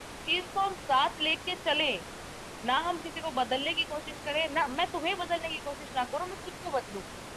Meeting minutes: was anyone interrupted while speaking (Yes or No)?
No